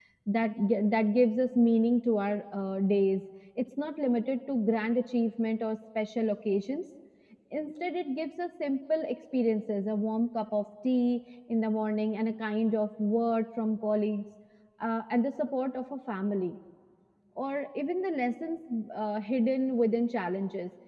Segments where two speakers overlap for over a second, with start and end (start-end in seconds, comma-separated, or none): none